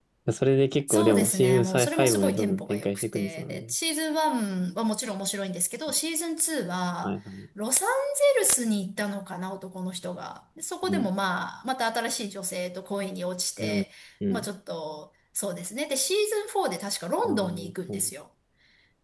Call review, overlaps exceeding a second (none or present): present